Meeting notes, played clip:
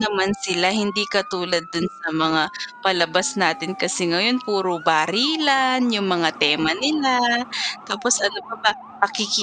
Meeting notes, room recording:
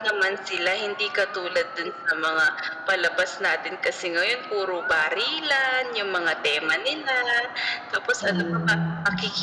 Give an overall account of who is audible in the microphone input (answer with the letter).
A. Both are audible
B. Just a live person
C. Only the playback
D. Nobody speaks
A